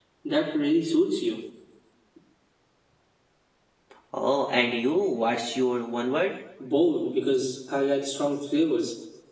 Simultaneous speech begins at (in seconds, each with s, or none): none